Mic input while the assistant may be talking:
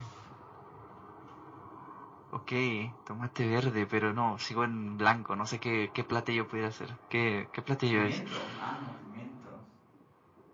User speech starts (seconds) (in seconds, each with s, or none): 7.9 s